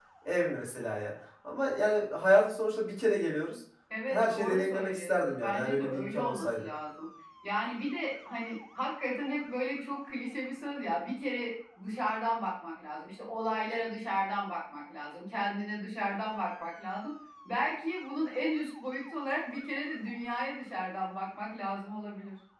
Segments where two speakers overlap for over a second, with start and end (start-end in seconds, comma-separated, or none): 4.1-6.7